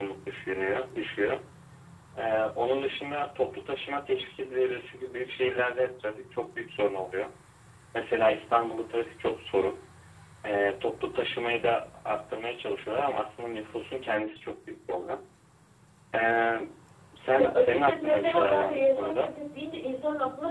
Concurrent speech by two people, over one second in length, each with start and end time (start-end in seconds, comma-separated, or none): 17.4-19.3